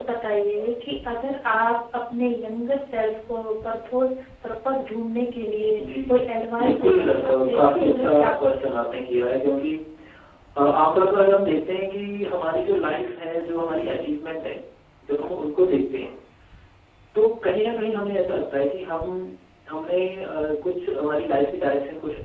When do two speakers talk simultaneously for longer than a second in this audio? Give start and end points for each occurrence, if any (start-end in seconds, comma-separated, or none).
6.7-8.7